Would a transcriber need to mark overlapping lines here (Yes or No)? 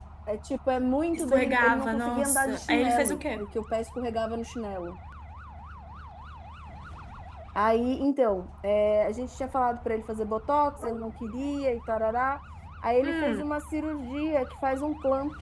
Yes